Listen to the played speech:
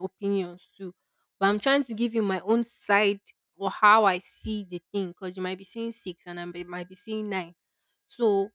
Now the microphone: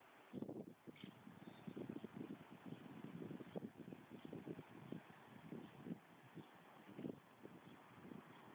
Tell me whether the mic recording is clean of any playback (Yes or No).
Yes